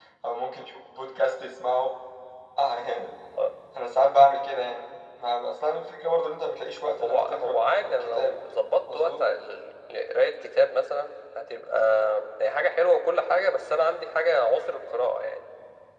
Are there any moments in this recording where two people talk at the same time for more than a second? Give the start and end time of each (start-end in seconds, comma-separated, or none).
7.0-8.3